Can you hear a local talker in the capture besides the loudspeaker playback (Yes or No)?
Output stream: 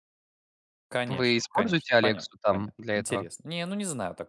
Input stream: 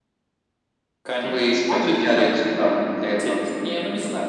No